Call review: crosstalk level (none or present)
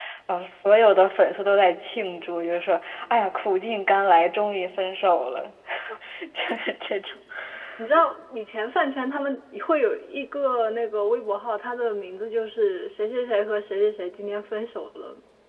none